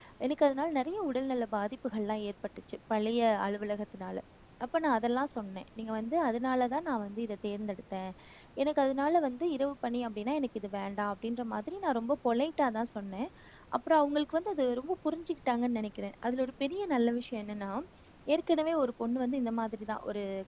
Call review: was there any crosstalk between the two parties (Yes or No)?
No